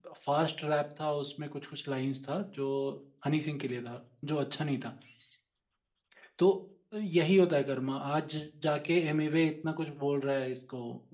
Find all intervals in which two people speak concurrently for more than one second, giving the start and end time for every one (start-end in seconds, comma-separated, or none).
none